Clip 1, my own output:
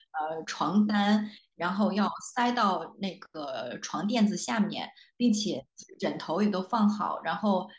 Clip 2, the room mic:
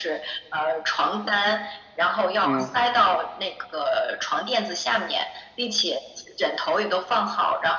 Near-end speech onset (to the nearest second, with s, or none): 2 s